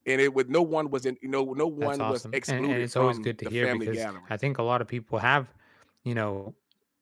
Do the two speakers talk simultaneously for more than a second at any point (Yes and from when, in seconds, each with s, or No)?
Yes, from 1.8 s